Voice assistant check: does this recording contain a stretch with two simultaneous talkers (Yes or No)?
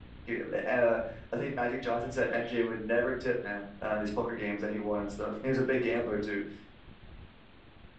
No